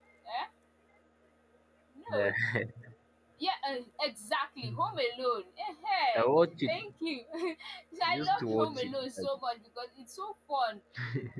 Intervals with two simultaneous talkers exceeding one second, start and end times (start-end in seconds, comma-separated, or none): 8.0-9.3